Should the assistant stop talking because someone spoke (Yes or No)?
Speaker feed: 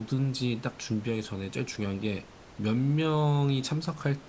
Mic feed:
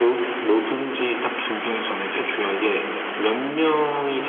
No